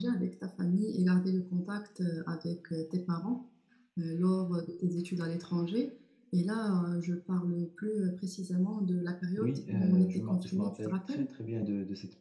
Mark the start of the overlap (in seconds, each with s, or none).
9.4 s